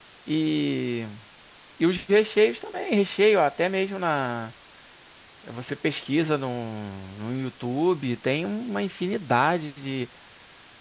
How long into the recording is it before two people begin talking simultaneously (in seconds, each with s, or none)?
none